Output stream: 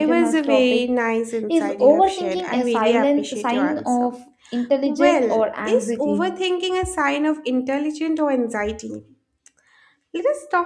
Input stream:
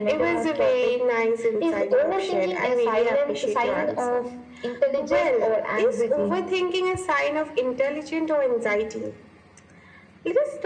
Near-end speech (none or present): none